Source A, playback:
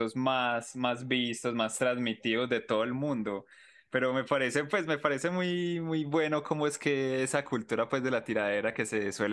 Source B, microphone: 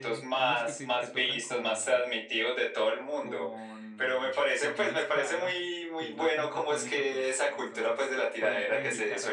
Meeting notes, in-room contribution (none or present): present